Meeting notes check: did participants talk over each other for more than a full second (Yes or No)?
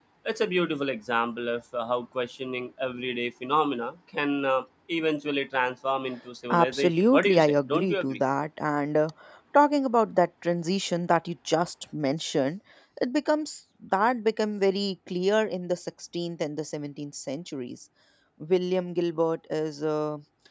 Yes